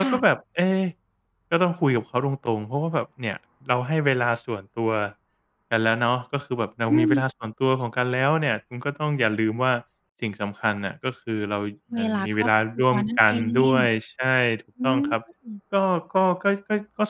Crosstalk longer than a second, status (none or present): present